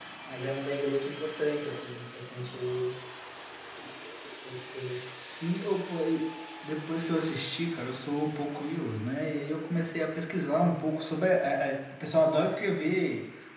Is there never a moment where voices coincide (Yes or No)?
Yes